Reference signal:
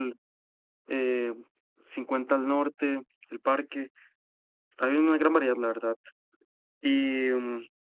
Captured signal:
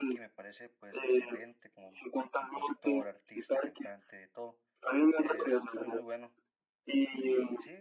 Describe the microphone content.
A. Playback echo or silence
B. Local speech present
B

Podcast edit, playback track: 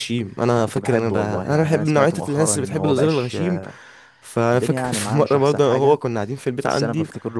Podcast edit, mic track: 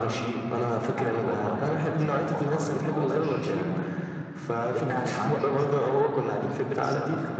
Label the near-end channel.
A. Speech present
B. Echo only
B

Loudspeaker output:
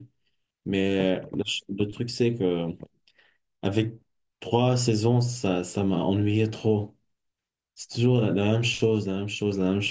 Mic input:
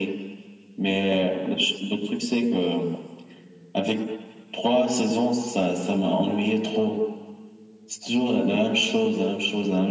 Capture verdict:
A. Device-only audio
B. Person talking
A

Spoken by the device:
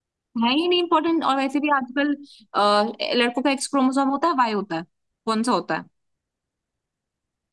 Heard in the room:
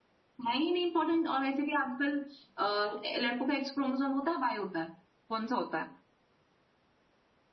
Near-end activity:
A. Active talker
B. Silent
B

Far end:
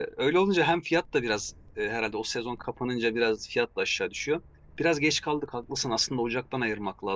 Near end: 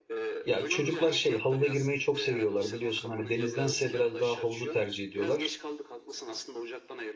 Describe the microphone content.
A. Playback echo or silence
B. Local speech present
B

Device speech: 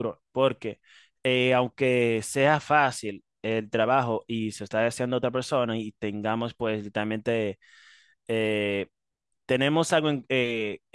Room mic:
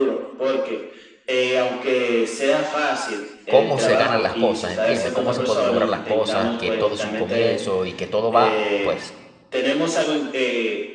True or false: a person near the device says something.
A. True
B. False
A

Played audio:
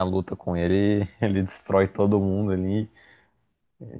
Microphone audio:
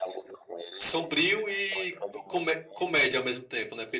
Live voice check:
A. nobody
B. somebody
B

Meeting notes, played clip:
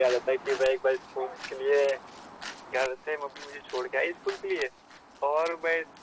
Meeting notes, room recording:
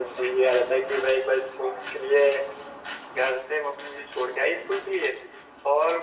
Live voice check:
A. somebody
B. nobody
B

